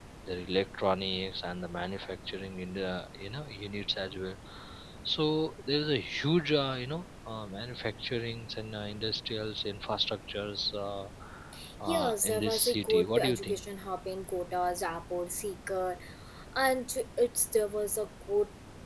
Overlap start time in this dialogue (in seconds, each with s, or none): 11.9 s